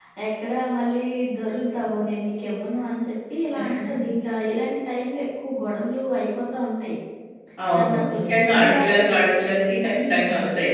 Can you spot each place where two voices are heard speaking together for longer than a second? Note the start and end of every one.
7.8-9.0

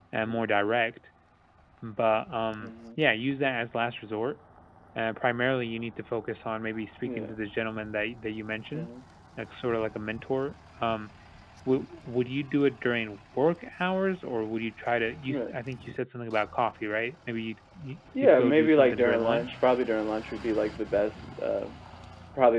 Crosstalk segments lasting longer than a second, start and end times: 18.2-19.5

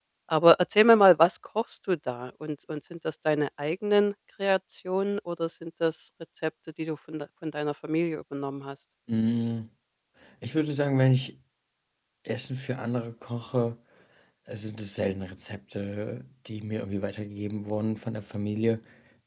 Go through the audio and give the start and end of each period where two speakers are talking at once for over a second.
none

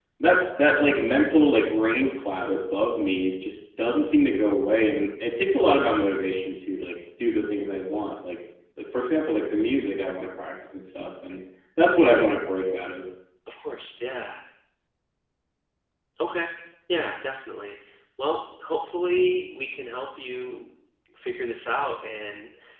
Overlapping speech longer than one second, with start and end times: none

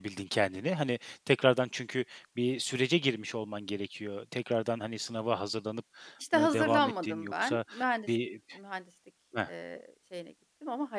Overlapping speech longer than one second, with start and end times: 6.3-7.6

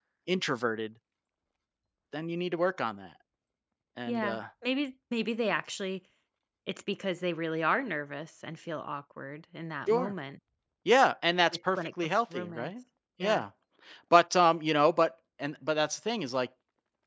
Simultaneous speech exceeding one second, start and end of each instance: 11.5-12.7

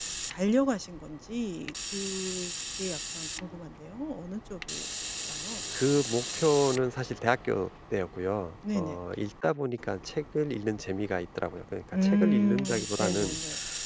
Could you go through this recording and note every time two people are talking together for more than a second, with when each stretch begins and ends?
11.9-13.4

